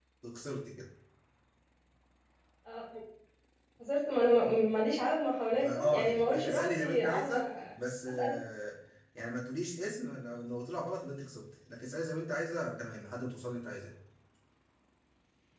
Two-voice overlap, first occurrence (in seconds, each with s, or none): 5.5 s